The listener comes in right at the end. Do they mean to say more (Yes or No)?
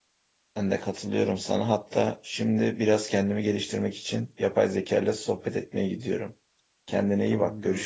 Yes